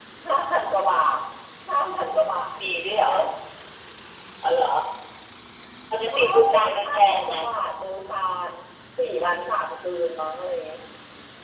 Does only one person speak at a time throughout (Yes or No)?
No